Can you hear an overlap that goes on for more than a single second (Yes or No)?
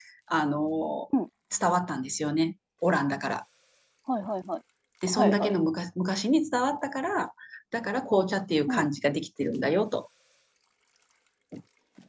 No